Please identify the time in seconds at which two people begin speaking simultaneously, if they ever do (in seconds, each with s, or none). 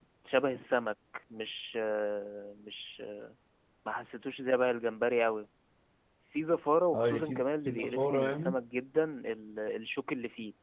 6.9 s